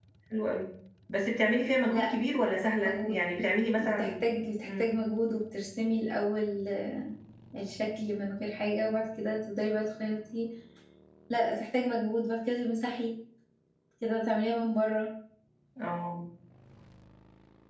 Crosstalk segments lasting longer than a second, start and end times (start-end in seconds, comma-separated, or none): none